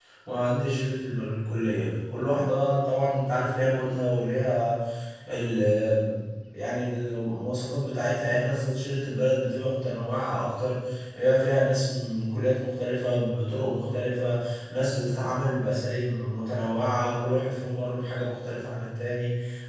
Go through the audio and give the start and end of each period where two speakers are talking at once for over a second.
none

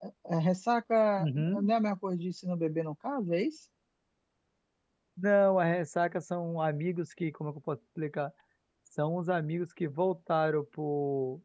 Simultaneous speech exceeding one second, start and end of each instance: none

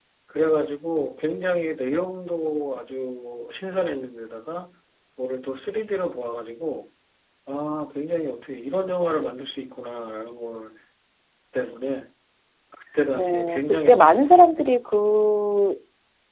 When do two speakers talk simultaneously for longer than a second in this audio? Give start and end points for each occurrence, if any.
13.2-14.4

